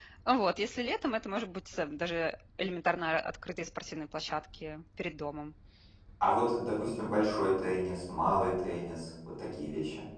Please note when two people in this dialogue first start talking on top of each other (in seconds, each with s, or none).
none